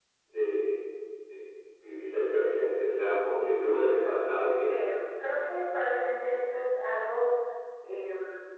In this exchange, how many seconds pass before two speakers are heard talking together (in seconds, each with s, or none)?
3.4 s